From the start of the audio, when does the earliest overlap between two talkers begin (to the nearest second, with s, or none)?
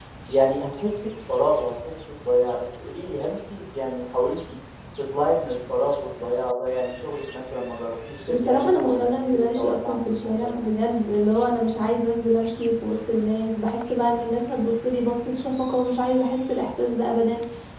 8 s